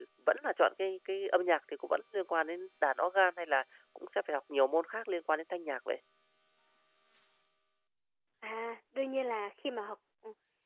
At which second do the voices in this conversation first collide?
none

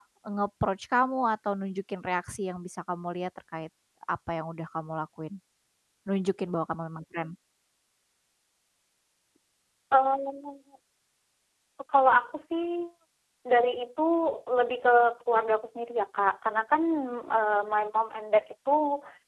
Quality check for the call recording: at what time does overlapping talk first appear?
none

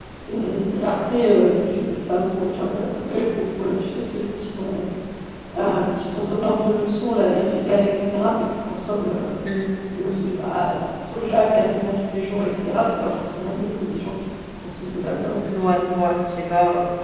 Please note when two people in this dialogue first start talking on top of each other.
none

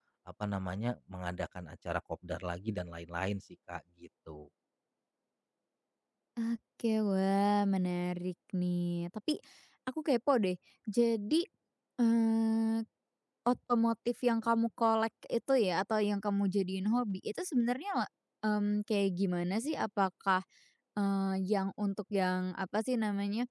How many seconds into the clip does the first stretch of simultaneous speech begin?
none

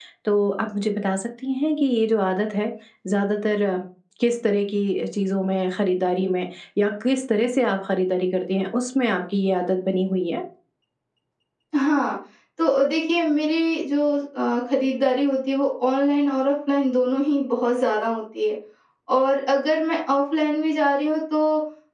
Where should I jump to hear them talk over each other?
none

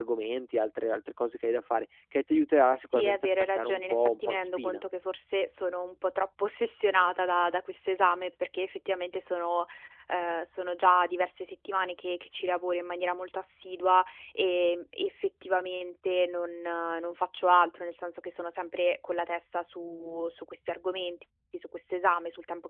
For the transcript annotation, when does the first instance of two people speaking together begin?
2.9 s

